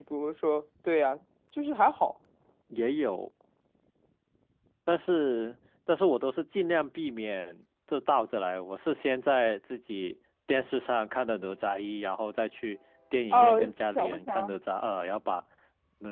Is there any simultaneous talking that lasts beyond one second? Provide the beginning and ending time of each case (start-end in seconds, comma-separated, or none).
13.3-14.5